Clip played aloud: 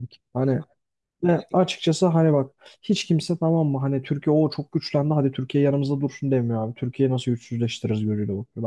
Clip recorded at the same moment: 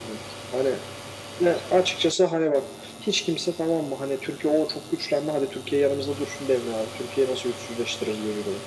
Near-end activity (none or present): none